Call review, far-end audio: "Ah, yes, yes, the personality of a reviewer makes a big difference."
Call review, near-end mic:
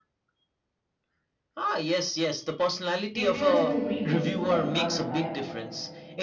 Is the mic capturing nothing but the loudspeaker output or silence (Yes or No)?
No